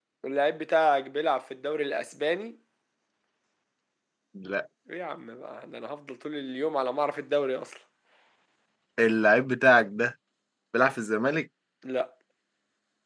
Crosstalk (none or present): none